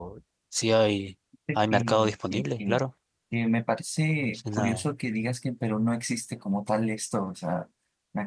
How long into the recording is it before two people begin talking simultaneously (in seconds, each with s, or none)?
1.6 s